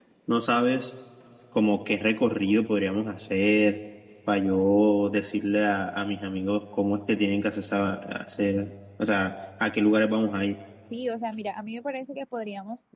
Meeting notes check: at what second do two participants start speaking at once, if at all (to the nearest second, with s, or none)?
none